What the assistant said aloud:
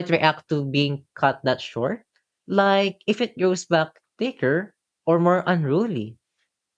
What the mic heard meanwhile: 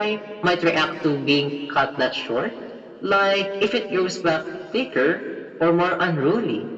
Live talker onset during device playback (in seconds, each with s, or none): none